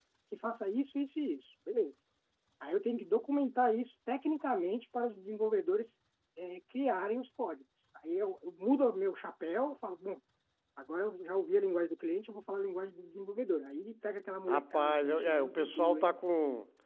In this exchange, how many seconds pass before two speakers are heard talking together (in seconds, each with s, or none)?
14.5 s